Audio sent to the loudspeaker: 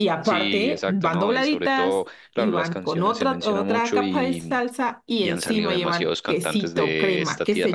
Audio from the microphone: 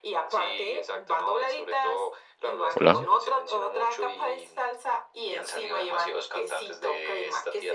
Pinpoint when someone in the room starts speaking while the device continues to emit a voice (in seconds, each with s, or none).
2.8 s